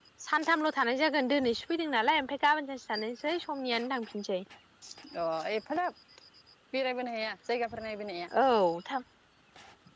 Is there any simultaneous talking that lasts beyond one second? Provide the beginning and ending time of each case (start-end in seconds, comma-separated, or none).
none